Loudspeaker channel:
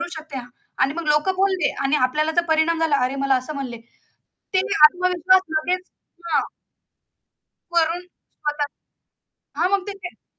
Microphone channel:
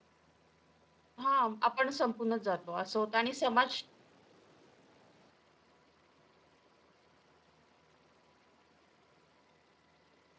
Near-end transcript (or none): हां, आपण संपूनच जातो असं होतं आणि समाज